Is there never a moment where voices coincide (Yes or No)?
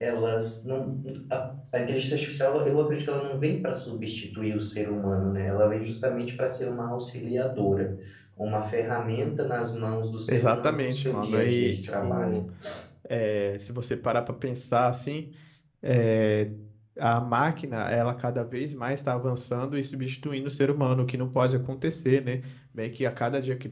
No